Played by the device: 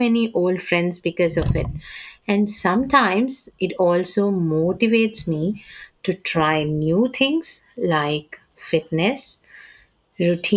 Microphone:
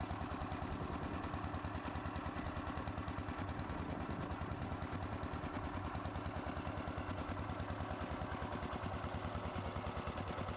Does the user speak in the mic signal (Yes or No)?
No